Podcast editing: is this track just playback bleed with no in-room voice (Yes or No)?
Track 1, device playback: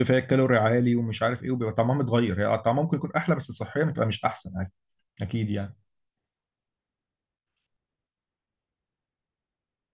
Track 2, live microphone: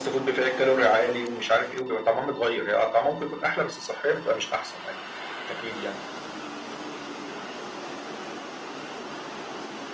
Yes